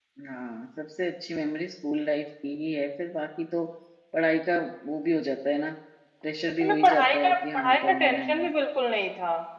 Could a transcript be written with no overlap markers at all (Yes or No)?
No